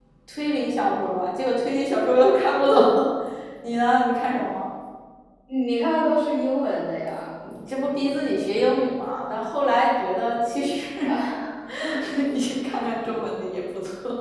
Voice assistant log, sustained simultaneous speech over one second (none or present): none